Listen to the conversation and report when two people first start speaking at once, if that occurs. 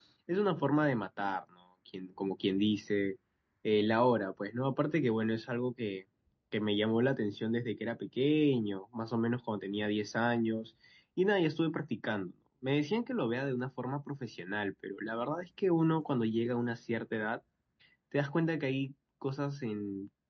none

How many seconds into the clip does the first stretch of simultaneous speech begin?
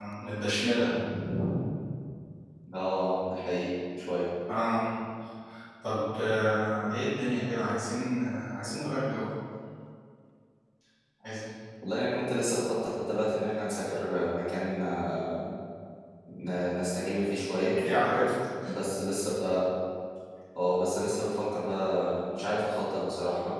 none

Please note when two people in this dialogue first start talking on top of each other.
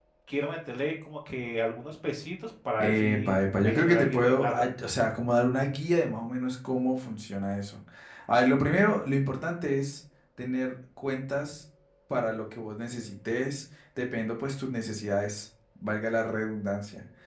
3 s

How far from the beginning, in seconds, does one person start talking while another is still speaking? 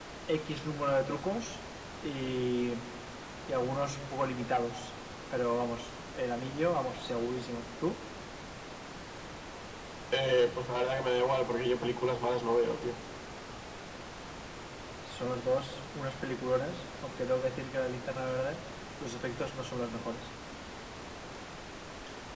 none

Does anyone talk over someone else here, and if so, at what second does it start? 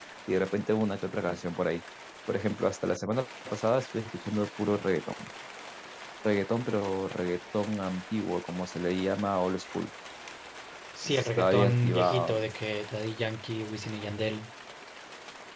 11 s

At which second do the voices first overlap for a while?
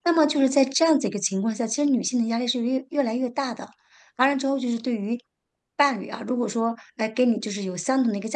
none

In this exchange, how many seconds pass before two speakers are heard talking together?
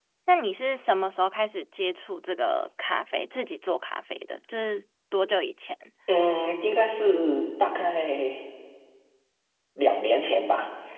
none

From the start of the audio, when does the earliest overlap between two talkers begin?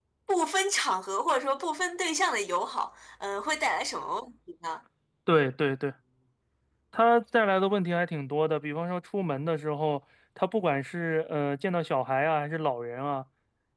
none

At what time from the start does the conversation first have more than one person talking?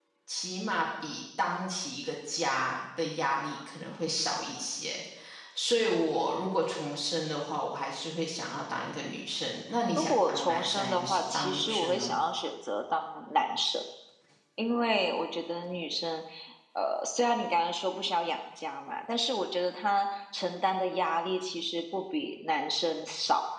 10 s

